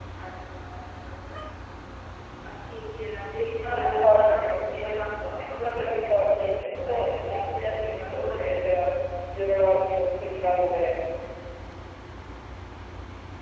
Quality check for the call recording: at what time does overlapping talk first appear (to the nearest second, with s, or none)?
3 s